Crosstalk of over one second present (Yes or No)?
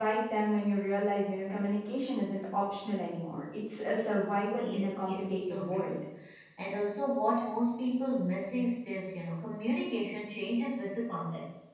Yes